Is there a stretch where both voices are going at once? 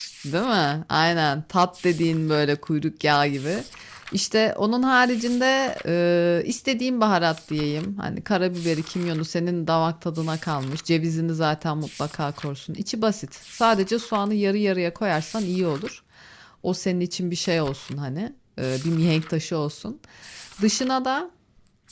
No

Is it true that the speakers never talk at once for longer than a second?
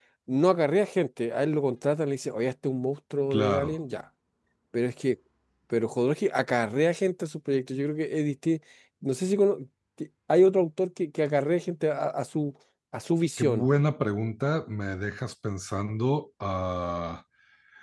Yes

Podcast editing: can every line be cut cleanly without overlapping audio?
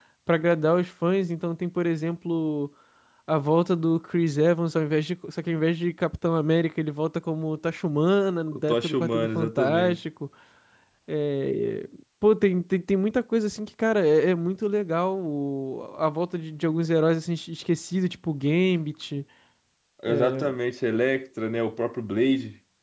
No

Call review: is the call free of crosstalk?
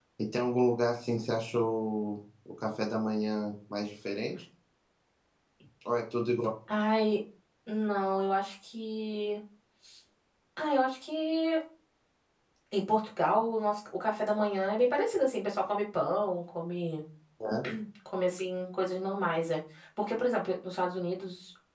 Yes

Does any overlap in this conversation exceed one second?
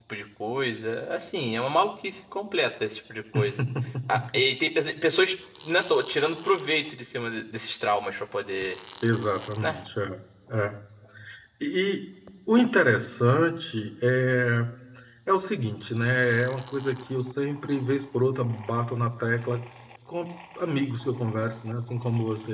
No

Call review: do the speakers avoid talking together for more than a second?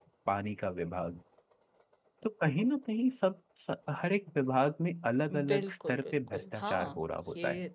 No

